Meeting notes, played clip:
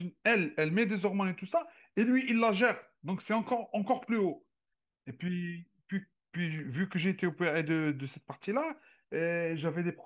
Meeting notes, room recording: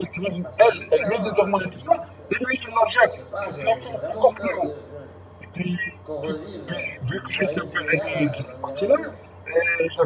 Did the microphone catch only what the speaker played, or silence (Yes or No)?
No